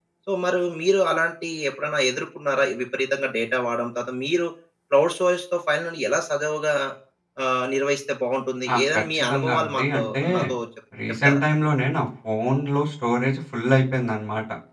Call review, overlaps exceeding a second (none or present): present